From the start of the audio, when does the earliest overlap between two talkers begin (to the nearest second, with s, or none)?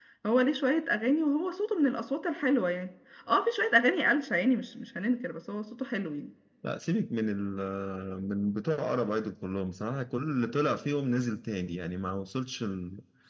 none